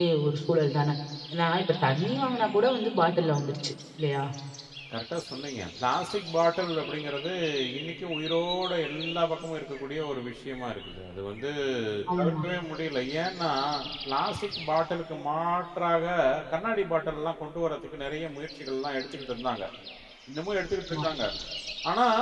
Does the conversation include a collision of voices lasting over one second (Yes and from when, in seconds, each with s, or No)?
No